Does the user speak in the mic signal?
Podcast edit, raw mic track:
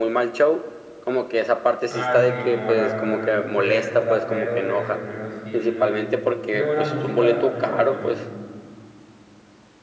Yes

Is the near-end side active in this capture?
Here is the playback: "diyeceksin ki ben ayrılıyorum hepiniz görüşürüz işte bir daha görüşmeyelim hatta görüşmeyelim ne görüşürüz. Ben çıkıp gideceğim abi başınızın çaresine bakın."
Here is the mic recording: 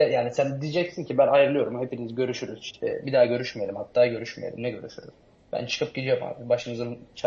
No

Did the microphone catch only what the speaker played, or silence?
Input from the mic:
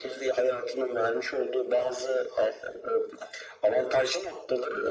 Yes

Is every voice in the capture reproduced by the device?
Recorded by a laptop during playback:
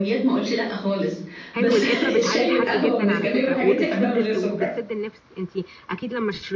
No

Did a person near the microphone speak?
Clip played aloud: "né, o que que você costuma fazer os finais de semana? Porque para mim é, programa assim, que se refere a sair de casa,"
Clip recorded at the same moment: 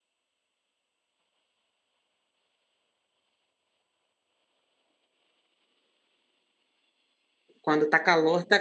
Yes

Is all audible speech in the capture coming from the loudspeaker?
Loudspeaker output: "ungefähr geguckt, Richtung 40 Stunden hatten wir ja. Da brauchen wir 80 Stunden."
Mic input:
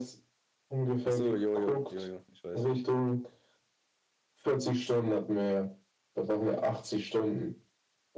No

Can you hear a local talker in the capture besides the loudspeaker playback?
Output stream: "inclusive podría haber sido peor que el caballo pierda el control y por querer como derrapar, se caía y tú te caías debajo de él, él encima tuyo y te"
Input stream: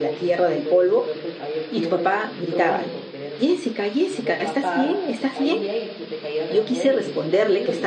Yes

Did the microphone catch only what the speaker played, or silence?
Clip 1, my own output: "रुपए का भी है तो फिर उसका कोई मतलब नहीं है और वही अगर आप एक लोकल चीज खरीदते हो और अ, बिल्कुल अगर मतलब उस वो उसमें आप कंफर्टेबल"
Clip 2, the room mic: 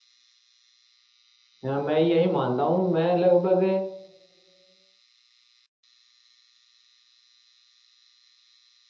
No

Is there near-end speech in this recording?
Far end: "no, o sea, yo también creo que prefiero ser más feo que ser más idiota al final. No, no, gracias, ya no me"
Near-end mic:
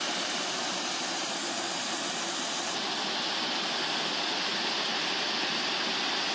No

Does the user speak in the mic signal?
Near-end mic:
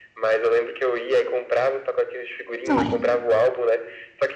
Yes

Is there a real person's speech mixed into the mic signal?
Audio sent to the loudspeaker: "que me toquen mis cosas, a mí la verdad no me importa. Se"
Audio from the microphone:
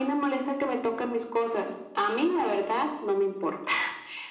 No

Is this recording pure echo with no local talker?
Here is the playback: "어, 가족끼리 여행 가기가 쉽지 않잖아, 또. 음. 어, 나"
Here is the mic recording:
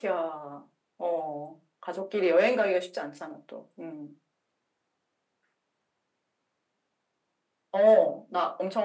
Yes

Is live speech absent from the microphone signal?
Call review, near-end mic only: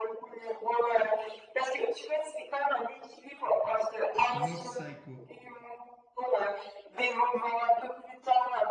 No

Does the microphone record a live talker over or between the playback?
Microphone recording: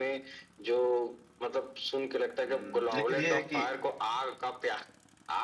Yes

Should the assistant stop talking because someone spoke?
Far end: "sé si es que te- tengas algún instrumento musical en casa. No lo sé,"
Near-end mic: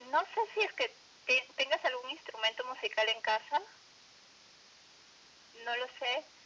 No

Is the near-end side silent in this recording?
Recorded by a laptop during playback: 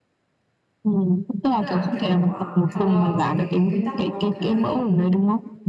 No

